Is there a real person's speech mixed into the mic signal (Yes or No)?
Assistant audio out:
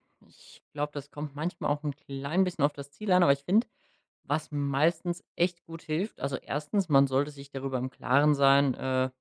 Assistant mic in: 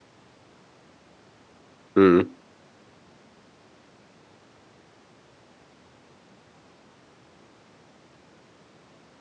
Yes